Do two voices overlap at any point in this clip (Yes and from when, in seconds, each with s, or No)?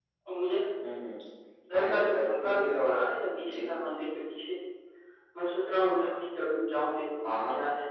Yes, from 1.7 s